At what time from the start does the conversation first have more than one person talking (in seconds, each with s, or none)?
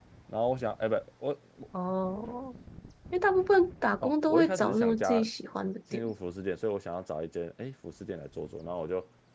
4.0 s